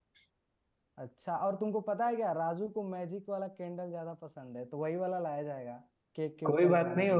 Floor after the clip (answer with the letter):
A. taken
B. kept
A